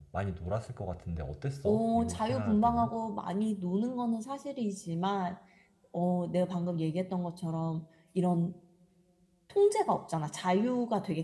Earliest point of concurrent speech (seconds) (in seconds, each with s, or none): 1.6 s